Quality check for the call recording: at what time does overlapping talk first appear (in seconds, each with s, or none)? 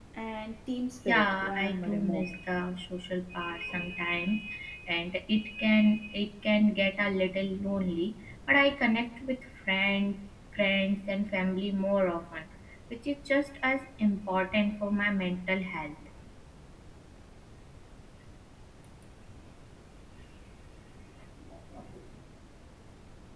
1.1 s